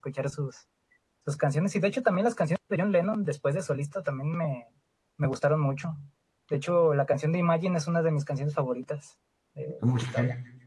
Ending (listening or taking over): taking over